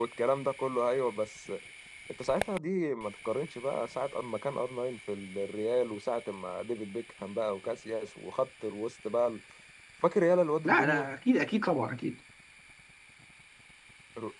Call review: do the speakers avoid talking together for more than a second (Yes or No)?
Yes